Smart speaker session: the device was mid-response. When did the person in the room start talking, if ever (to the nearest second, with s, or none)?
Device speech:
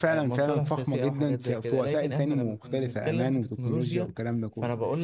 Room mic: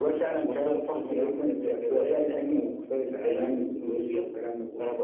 none